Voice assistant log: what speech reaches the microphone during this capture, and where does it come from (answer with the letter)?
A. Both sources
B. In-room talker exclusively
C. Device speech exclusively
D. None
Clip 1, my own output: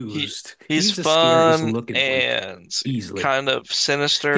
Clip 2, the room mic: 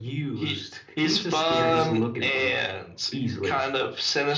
C